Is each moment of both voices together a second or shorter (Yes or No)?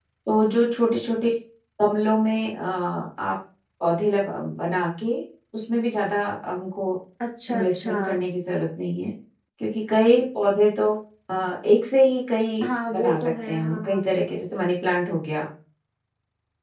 No